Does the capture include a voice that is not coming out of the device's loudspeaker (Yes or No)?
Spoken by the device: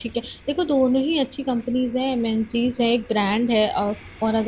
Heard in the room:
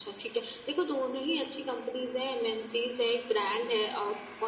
No